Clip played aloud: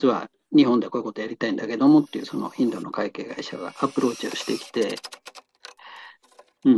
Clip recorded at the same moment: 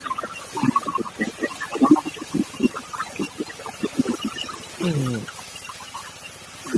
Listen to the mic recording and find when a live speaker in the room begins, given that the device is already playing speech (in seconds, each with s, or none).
4.8 s